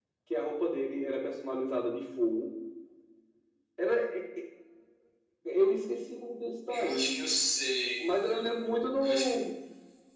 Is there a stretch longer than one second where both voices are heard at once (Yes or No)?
No